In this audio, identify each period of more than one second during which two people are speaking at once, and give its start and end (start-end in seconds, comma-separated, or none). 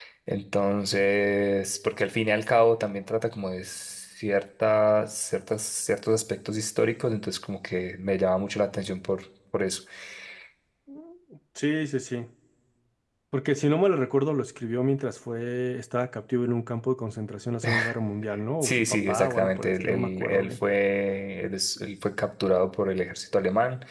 18.6-20.6